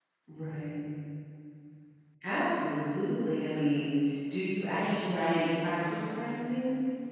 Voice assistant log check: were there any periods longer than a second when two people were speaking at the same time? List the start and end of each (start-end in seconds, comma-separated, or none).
4.7-6.3